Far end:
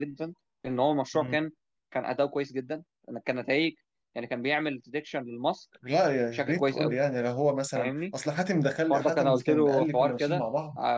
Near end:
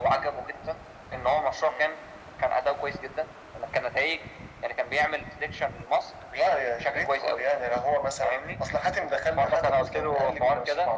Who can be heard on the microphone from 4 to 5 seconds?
echo only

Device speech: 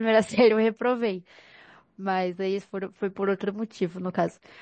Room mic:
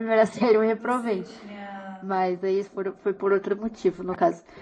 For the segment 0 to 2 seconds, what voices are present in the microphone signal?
both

